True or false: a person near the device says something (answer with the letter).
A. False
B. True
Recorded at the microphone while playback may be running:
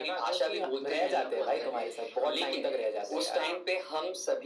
B